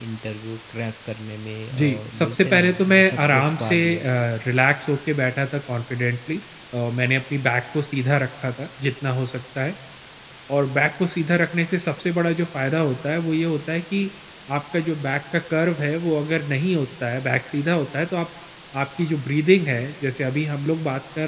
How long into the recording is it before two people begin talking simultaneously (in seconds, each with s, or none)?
1.7 s